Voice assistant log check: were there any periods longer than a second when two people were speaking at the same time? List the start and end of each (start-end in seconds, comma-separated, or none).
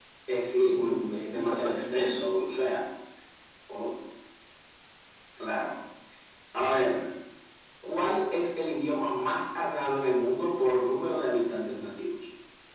0.8-2.1